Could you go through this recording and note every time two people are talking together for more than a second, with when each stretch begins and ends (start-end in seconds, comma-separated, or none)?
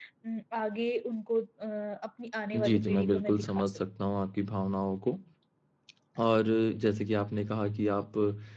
2.5-3.8